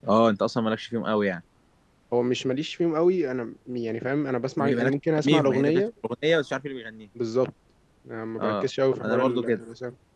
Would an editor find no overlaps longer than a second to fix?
No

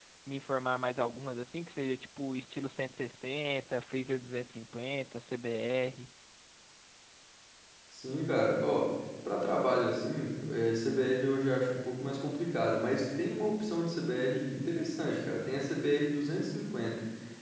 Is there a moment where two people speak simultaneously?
No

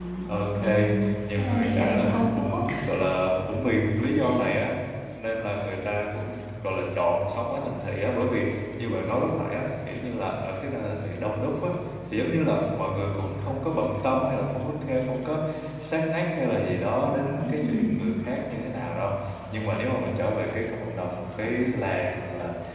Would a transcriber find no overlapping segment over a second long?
No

